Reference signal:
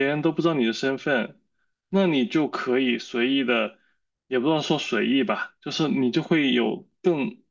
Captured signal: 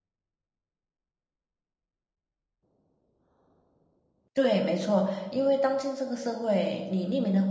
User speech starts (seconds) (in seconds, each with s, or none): 4.3 s